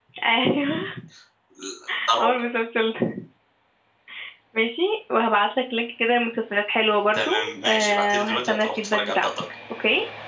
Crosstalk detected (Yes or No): Yes